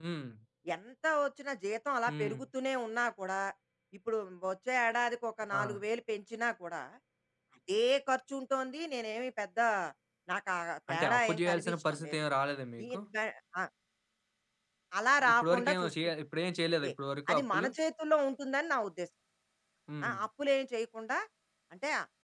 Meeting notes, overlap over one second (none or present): present